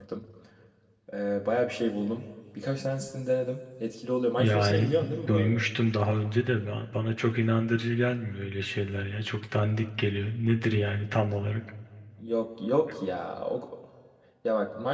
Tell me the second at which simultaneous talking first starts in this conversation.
4.4 s

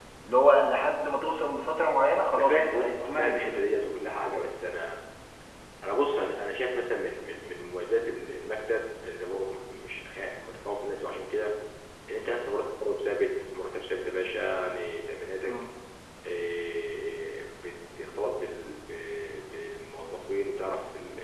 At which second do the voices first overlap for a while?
2.3 s

